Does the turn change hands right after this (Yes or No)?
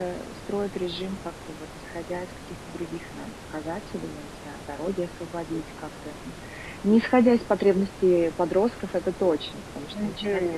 Yes